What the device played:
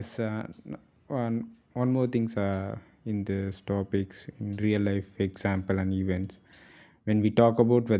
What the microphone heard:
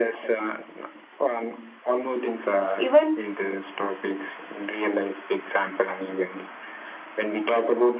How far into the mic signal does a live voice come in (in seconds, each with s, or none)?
2.8 s